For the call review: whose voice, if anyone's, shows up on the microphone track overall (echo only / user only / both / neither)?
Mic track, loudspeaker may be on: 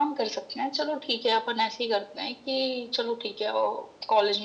echo only